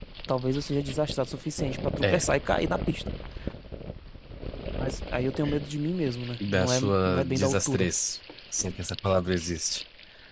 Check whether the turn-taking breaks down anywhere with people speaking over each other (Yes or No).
Yes